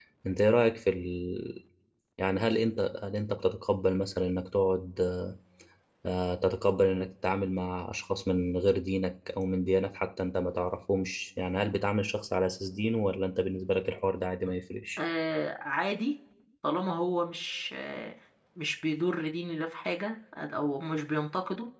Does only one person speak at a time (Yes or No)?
Yes